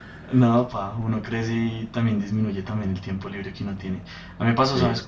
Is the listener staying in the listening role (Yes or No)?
Yes